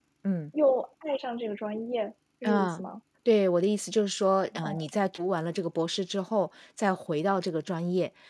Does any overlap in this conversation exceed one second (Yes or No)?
No